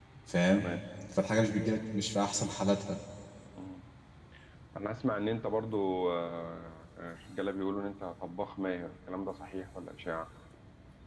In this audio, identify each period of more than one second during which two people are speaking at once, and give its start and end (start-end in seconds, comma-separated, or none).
none